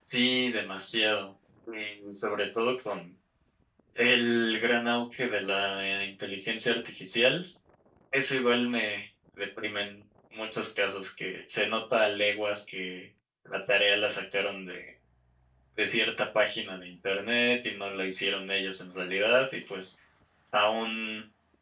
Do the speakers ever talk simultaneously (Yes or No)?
No